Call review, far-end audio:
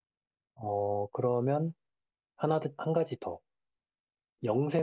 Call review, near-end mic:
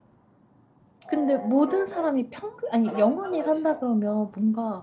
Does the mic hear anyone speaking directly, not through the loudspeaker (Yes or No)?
Yes